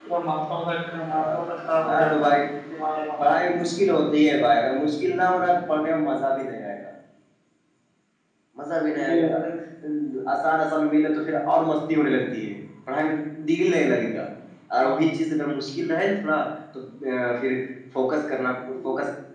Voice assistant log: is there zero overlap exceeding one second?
No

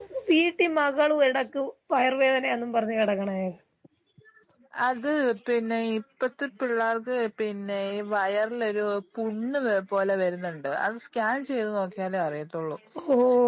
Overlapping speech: No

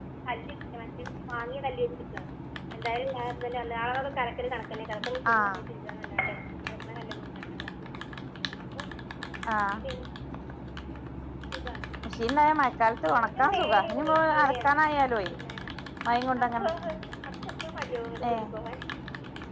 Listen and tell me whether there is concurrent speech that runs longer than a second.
Yes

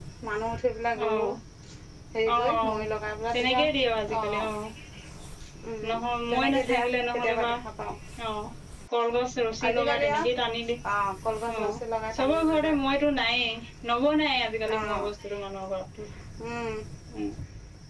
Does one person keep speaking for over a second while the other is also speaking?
Yes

